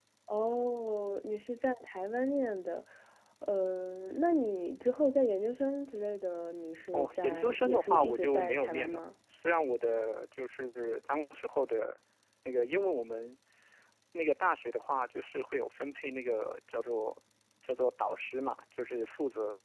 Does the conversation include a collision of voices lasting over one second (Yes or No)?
Yes